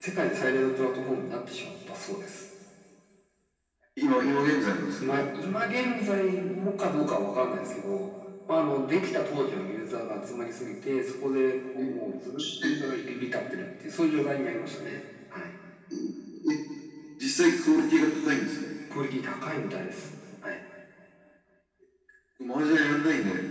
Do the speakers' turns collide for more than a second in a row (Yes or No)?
No